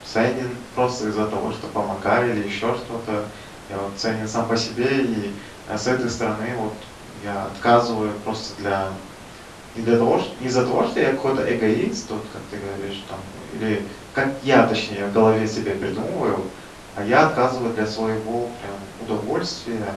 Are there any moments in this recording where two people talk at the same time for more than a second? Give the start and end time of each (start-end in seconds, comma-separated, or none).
none